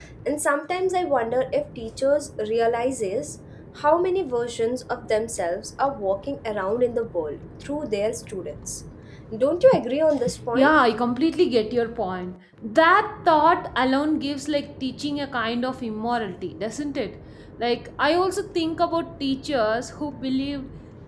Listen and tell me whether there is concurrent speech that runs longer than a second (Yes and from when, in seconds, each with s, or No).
No